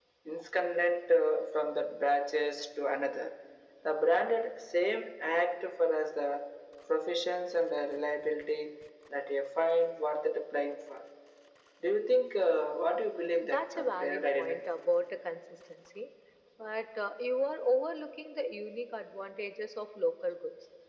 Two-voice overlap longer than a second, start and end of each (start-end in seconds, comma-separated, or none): 13.4-14.7